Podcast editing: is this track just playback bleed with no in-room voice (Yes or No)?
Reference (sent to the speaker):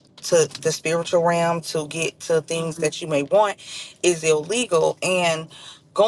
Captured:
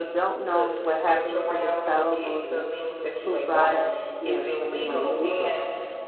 No